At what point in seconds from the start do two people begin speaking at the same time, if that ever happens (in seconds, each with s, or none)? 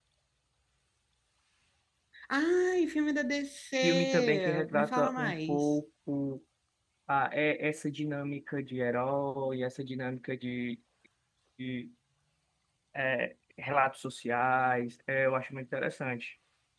3.7 s